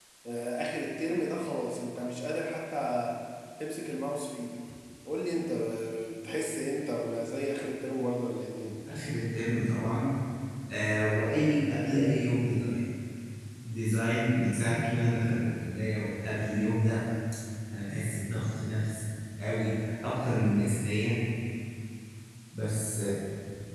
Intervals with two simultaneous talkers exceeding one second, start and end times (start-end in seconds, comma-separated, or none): none